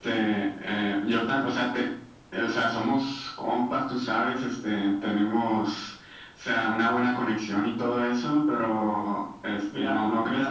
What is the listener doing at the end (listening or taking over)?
listening